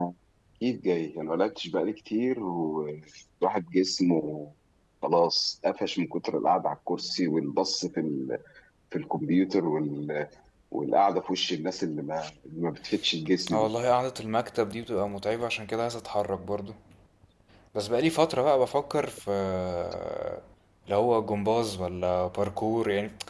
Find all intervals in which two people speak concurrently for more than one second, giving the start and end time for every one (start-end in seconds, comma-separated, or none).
none